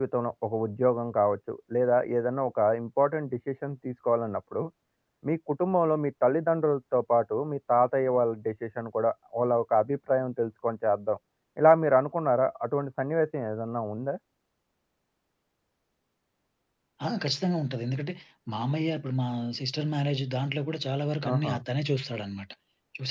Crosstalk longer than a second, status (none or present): none